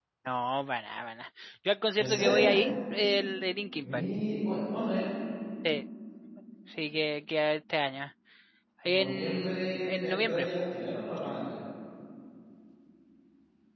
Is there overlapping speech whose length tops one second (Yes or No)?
Yes